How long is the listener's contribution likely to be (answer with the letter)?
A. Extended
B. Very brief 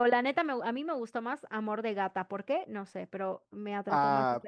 A